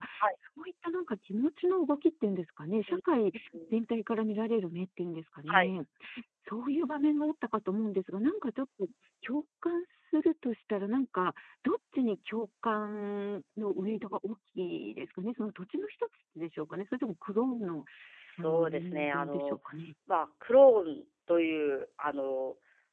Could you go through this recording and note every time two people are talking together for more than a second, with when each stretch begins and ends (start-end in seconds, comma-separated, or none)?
18.4-19.6